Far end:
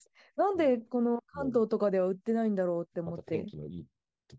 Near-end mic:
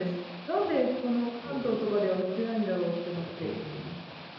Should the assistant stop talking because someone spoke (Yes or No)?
No